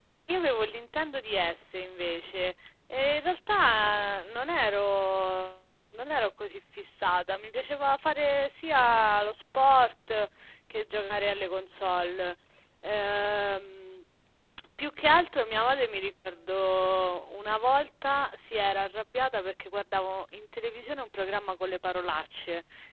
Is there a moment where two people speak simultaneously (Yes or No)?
No